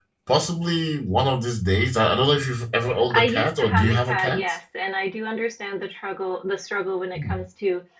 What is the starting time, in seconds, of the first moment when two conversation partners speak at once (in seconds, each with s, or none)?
2.9 s